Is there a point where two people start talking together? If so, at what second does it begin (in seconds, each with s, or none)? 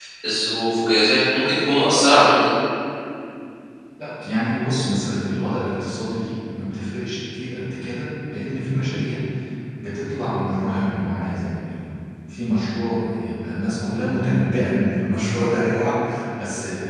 none